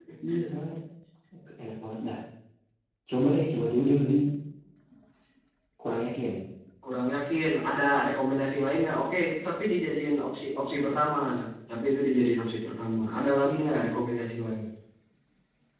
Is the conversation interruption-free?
Yes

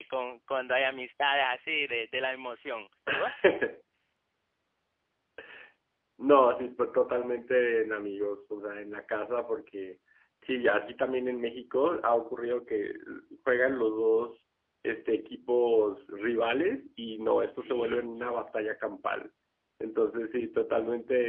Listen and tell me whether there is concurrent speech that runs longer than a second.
No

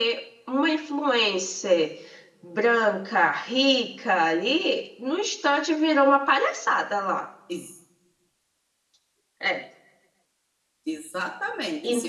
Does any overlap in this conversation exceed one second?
No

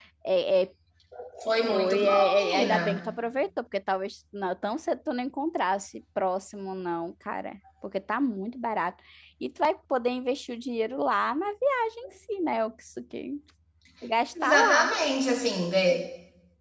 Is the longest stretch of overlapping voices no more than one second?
No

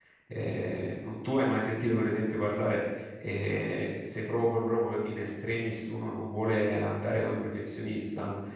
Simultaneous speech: No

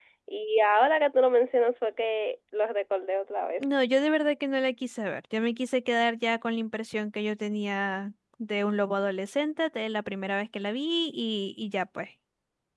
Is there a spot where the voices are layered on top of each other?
No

